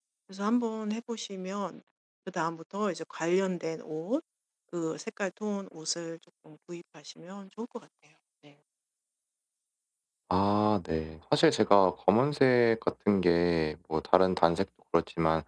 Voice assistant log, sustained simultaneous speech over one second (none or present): none